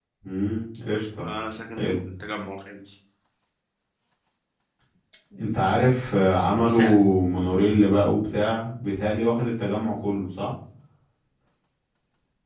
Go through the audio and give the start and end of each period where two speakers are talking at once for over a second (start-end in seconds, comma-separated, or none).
none